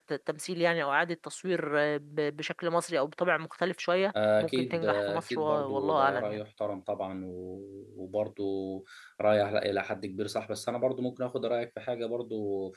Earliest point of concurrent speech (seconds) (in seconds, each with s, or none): 4.1 s